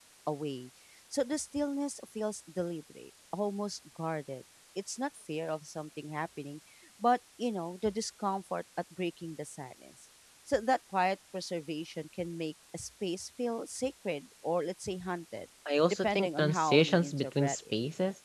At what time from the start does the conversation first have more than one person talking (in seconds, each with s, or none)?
16.0 s